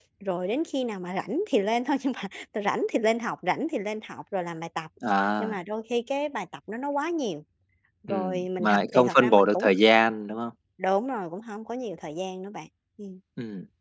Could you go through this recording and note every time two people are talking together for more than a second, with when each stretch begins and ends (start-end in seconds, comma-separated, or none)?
8.1-9.7